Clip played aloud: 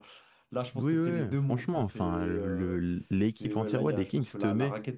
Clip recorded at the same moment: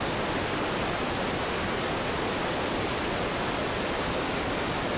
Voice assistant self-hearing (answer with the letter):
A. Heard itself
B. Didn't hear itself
B